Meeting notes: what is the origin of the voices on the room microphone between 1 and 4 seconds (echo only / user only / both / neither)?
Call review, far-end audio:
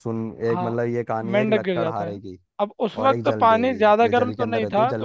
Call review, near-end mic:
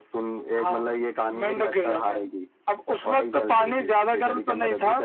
echo only